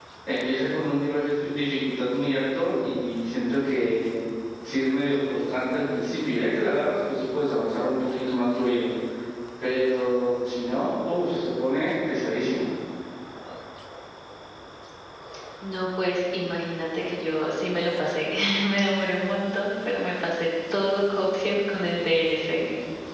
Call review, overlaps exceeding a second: none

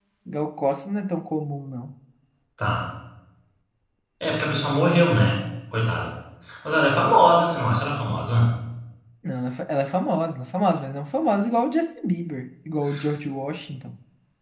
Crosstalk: none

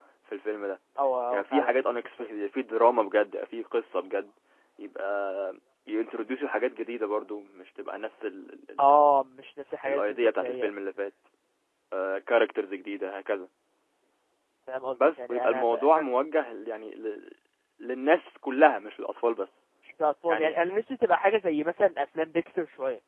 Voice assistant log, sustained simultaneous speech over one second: present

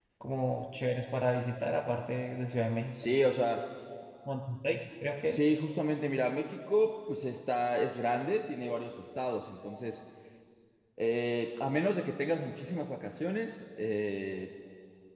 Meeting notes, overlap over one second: none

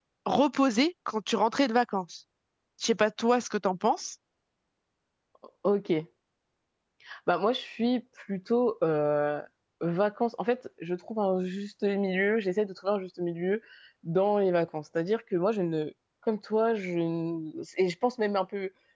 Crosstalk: none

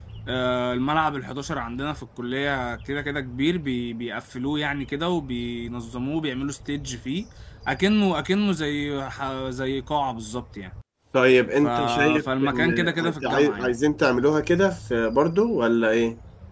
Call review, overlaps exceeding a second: present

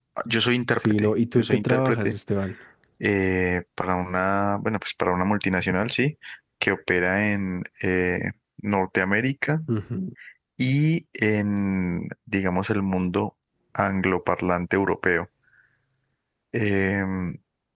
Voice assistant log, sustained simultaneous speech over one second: present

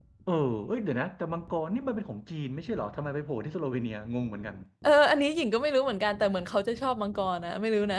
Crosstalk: none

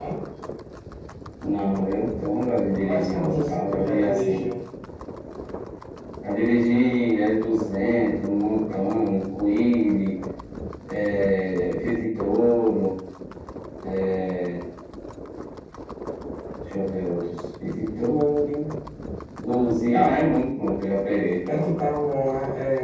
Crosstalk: present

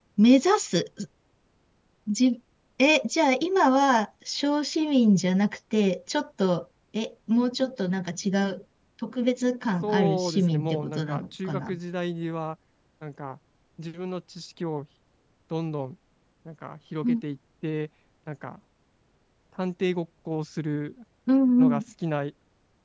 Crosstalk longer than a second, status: present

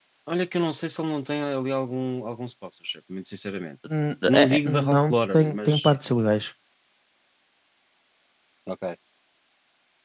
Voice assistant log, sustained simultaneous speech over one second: present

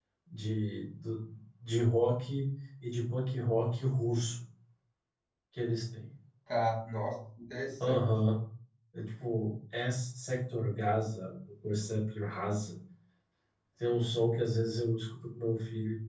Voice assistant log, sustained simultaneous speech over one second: none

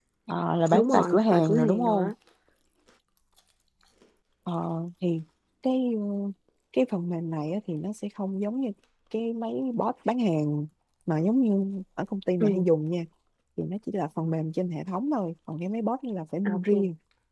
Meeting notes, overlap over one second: present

